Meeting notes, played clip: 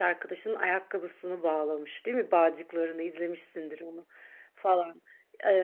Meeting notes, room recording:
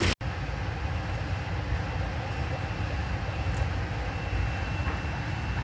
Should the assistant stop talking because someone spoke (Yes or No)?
No